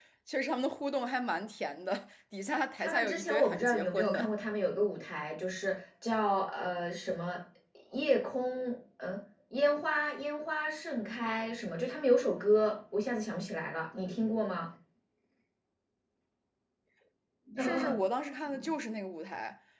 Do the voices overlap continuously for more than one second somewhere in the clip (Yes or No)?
Yes